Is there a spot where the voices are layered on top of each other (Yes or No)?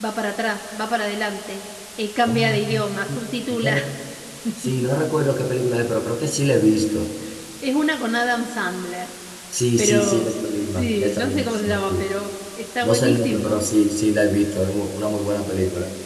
Yes